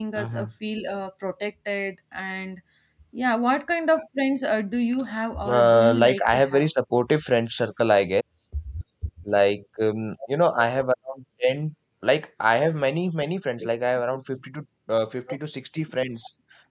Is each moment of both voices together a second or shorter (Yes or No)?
No